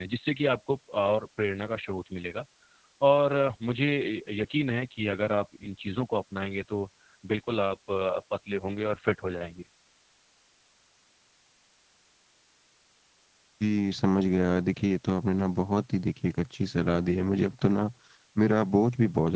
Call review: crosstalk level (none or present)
none